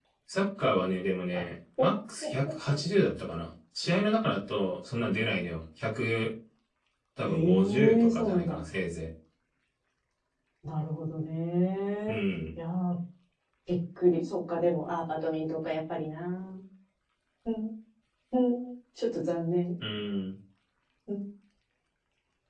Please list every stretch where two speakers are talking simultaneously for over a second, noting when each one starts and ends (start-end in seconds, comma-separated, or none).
7.2-8.6